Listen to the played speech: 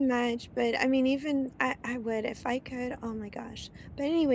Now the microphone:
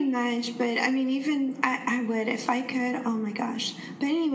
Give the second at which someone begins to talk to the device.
none

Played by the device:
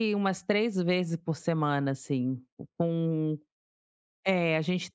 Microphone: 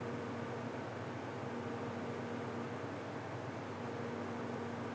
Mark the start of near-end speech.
none

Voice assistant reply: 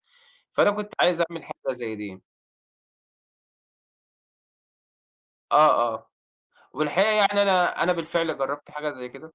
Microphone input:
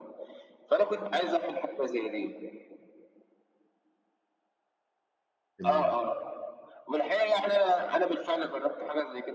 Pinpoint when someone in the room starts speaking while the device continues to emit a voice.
6 s

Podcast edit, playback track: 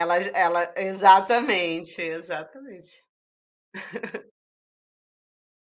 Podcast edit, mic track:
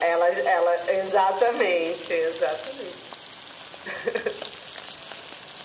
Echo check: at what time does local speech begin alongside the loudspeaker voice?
none

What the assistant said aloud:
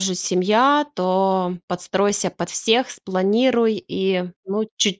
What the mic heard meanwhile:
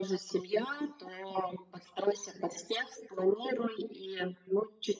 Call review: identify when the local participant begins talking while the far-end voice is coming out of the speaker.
none

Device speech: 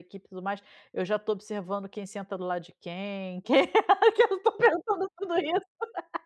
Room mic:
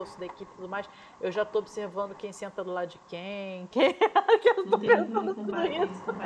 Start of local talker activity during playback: 5 s

